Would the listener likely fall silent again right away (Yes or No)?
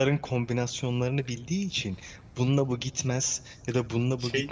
Yes